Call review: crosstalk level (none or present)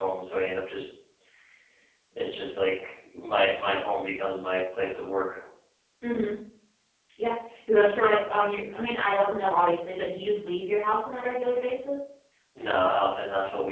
none